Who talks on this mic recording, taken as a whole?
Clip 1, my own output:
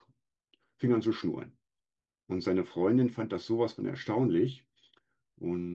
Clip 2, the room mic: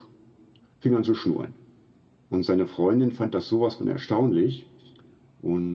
echo only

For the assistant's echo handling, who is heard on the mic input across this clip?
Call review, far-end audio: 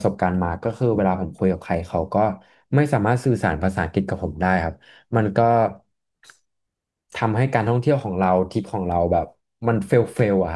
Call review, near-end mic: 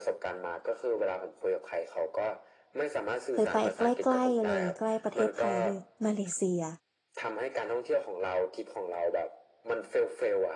both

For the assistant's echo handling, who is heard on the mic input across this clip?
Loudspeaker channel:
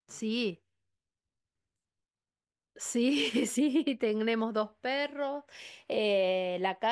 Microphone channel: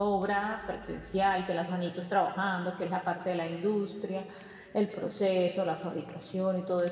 user only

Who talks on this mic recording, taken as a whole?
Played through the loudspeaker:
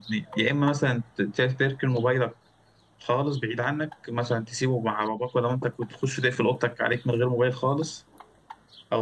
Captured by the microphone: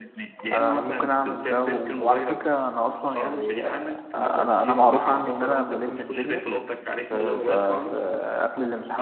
both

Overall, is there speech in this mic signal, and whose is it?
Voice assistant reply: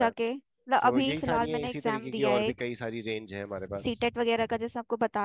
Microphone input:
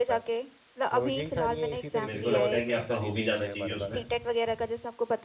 both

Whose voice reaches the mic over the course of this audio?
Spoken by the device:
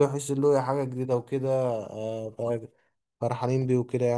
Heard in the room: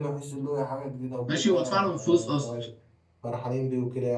both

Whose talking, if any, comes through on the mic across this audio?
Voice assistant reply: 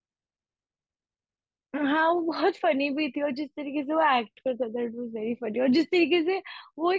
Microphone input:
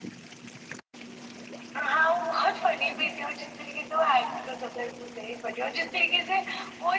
echo only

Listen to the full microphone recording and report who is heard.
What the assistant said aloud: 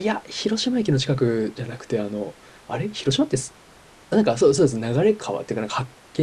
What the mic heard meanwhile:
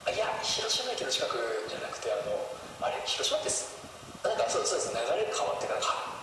echo only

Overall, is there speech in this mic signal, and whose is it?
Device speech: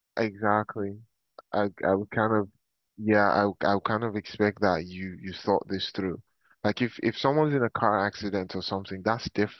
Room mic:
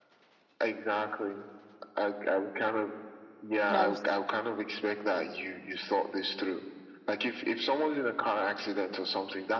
both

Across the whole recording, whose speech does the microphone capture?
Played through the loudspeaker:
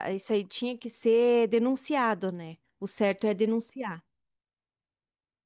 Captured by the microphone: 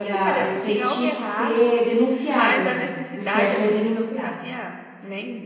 both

